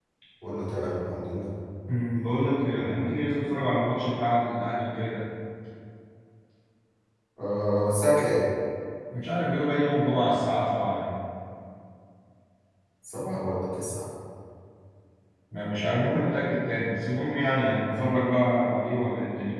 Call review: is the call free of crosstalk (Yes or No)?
Yes